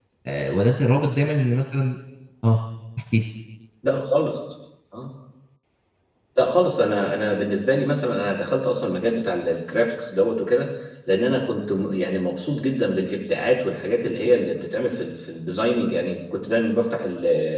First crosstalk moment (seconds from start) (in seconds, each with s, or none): none